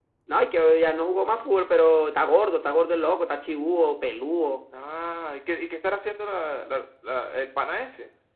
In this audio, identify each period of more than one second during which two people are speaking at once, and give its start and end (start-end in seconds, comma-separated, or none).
none